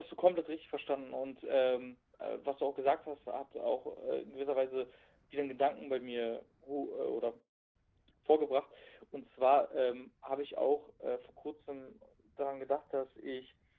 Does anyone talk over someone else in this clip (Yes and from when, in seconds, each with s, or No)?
No